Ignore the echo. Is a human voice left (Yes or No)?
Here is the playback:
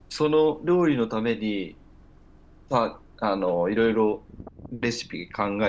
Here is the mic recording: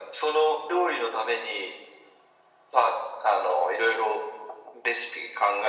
No